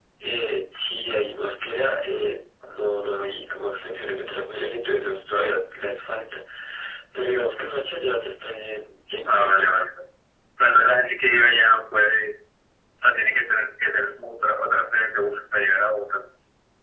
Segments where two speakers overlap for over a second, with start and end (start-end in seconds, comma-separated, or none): none